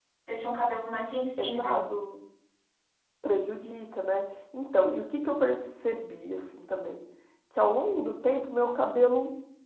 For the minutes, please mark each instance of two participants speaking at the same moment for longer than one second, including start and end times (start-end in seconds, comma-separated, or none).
none